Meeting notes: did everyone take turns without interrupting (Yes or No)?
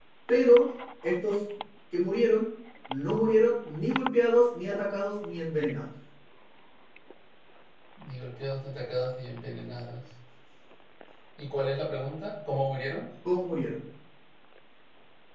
Yes